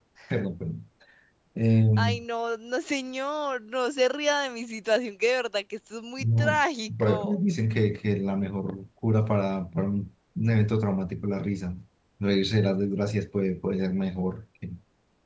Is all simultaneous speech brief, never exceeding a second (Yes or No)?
Yes